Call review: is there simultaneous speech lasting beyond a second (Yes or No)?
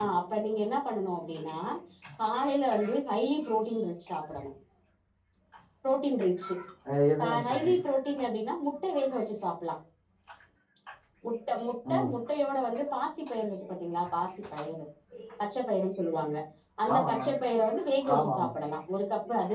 No